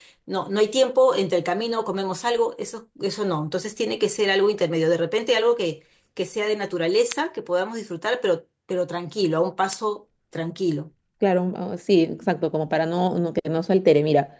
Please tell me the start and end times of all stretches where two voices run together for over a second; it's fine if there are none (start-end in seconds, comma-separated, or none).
none